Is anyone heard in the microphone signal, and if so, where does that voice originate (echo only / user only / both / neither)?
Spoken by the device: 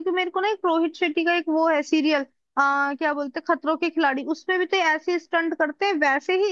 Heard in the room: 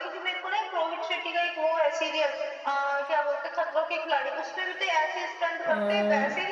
both